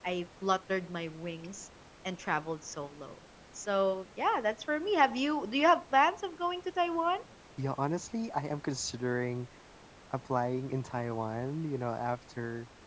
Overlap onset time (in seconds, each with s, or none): none